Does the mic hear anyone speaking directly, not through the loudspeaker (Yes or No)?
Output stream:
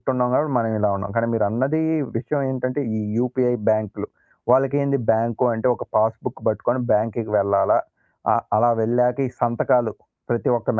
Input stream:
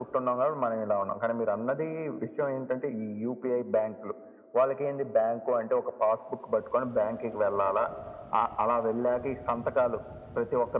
No